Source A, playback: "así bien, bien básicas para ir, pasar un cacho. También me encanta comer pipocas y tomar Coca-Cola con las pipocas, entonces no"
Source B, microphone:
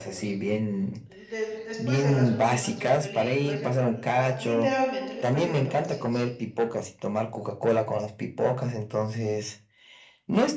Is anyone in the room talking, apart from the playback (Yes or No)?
Yes